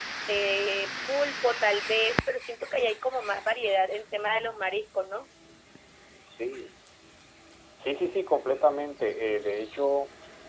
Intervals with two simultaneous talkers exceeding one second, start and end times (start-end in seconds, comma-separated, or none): none